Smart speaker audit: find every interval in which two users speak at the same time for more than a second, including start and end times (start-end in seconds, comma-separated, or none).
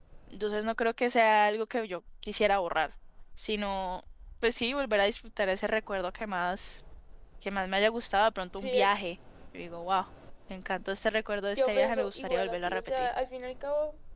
11.6-13.1